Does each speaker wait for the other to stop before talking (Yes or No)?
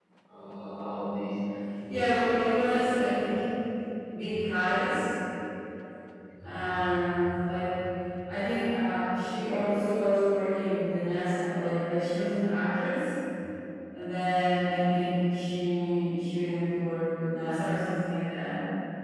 No